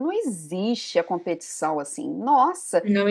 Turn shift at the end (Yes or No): No